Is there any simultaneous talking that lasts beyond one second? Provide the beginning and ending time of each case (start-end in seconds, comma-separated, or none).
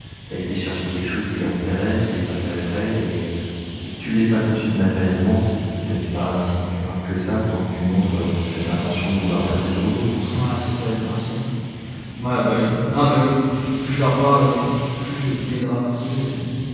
none